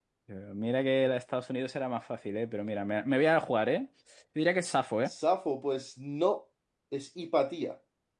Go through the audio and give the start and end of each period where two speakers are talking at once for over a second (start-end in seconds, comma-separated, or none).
none